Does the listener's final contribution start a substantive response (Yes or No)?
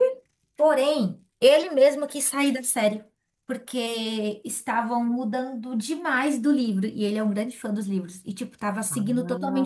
Yes